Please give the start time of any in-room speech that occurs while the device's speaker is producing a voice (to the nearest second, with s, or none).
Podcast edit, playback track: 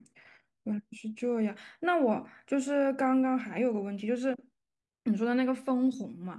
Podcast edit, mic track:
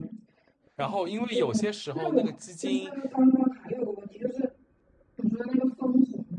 1 s